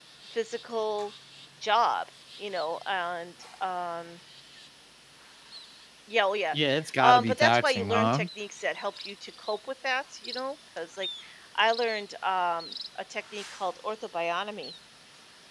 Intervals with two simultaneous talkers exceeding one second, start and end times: 7.0-8.2

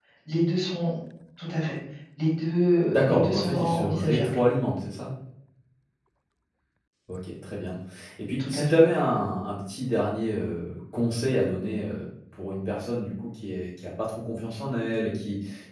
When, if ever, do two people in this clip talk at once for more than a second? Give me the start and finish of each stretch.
2.9-4.4

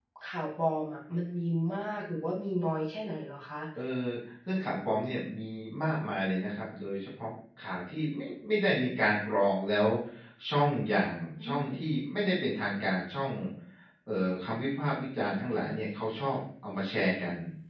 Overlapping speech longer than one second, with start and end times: none

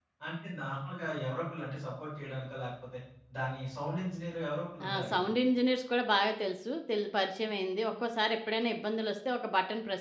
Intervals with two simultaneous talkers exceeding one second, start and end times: none

